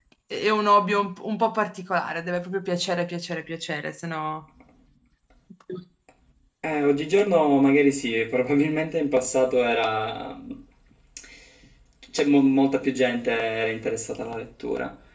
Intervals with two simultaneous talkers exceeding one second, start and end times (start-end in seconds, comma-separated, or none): none